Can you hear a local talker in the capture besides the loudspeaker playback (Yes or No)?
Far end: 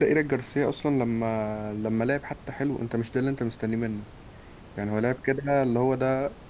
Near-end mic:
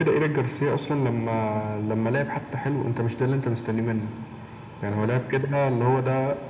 Yes